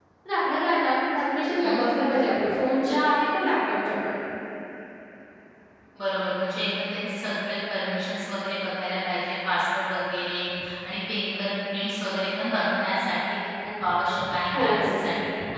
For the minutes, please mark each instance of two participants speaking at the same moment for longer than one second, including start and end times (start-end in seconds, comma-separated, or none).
none